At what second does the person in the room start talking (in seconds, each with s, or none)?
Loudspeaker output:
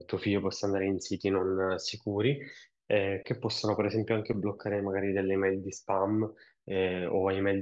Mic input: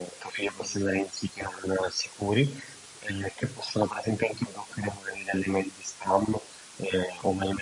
none